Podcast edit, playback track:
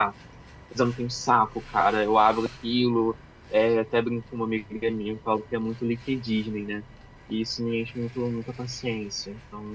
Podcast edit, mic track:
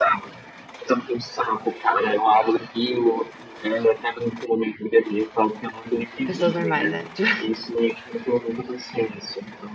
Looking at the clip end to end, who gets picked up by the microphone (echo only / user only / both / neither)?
both